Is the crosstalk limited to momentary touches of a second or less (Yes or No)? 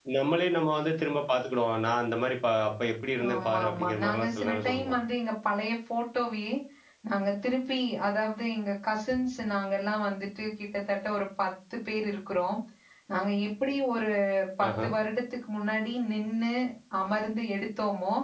No